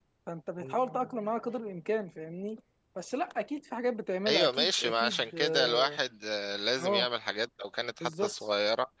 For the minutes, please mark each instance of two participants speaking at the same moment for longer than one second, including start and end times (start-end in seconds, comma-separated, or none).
4.3-6.0